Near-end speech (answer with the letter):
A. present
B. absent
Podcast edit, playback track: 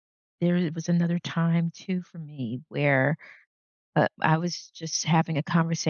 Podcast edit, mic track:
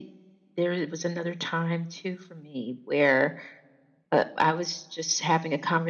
B